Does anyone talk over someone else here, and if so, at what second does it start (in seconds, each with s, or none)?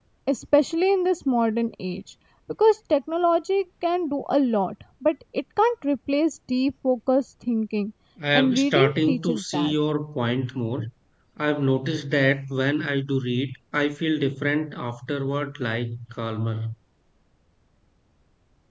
8.3 s